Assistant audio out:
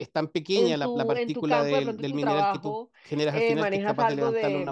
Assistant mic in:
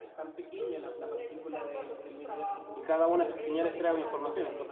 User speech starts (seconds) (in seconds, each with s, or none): 2.8 s